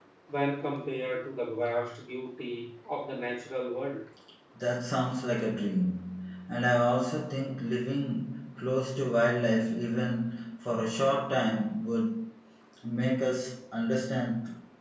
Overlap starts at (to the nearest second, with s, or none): none